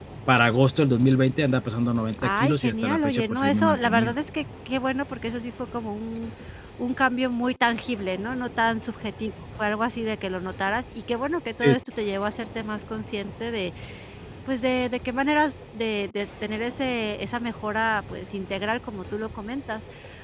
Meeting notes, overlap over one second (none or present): present